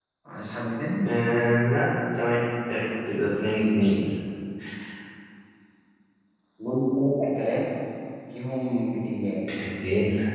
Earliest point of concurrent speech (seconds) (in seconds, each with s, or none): none